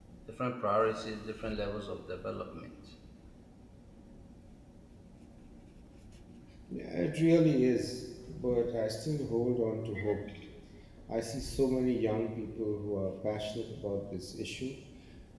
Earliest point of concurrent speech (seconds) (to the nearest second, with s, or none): none